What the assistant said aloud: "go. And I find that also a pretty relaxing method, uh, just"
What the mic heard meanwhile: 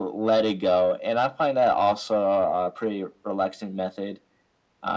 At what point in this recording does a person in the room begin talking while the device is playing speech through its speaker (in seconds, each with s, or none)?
none